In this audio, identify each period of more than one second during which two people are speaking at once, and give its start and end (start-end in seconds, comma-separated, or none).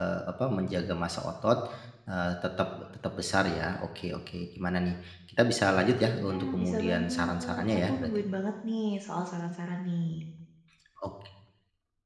6.2-8.2